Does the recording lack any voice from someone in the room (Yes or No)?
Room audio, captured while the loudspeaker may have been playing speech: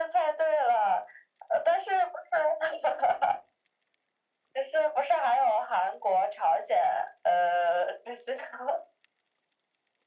Yes